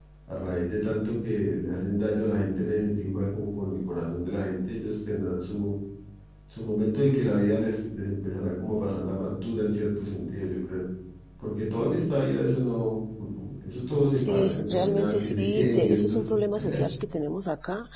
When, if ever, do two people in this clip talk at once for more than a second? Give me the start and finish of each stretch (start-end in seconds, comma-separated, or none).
14.2-16.2